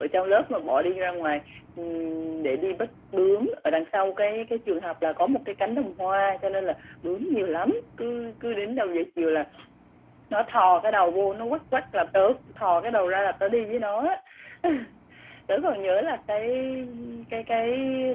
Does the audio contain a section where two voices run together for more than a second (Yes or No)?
No